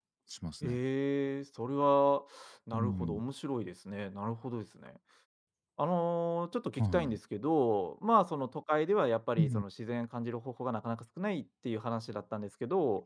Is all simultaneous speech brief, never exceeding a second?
Yes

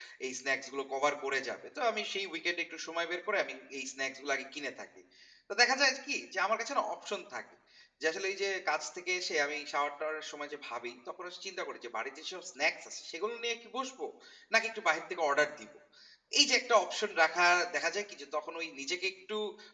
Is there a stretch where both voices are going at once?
No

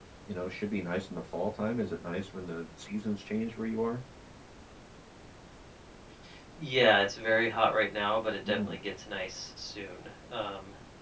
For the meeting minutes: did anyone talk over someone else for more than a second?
No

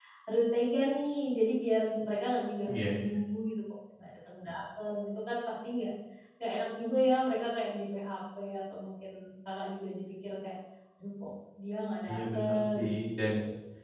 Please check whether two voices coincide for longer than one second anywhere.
Yes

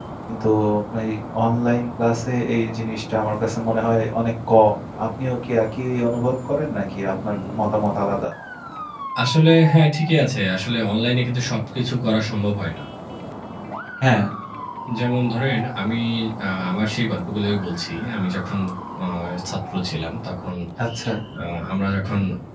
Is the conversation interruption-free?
Yes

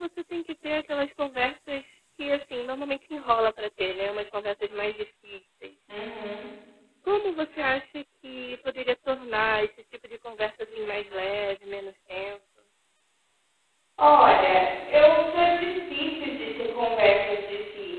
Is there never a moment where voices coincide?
Yes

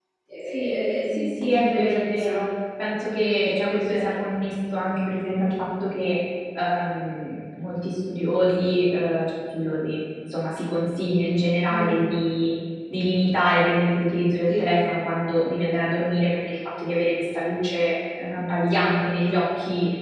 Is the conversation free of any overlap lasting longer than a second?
No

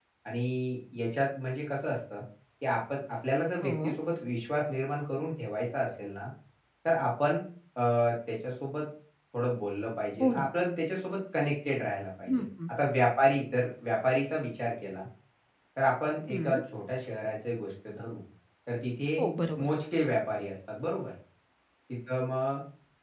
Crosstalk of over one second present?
No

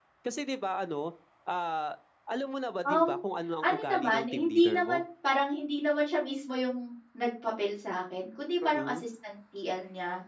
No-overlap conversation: No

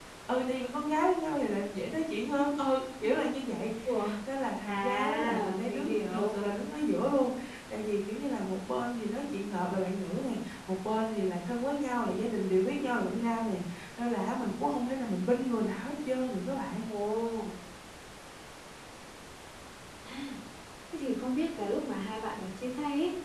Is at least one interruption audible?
Yes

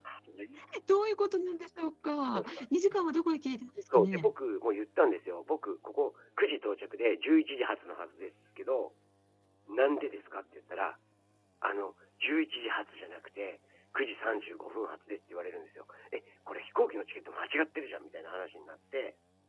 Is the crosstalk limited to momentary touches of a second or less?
Yes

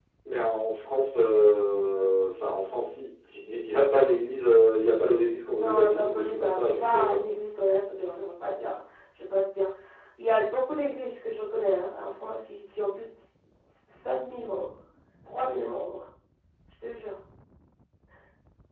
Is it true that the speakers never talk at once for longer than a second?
No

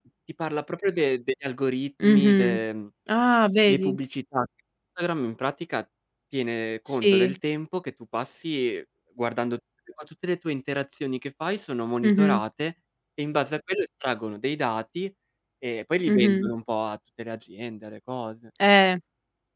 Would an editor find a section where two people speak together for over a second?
No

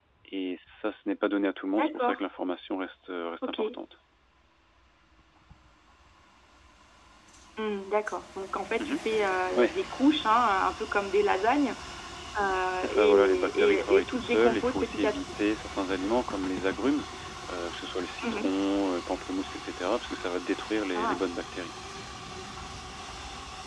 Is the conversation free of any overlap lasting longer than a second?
No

